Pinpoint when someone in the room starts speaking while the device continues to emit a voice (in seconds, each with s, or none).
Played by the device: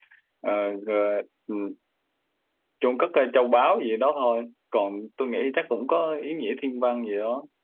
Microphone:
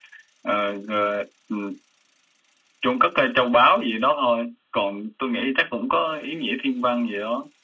none